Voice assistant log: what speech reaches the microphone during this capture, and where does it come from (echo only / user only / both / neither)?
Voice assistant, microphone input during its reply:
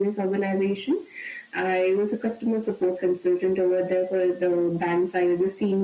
echo only